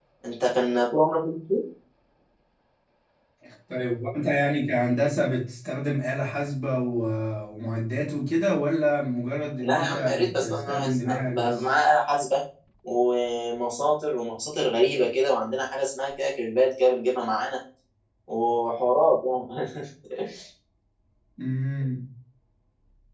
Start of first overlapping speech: 9.6 s

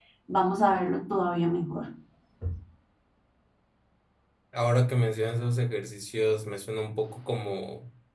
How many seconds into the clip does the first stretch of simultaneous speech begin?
none

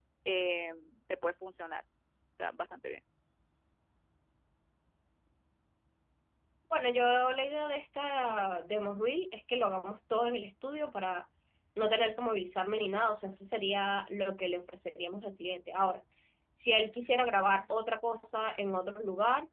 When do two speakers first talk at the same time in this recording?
none

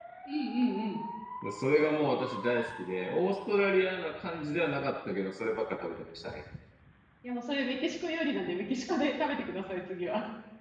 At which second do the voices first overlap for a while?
none

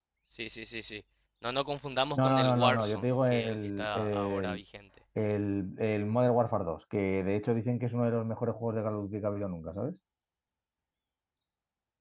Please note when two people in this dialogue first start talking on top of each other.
2.2 s

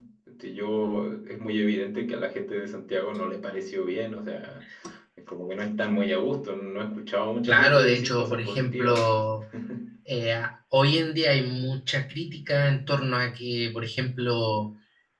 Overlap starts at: 7.5 s

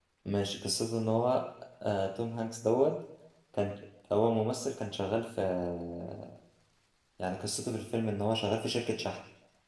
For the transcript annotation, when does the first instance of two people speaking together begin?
none

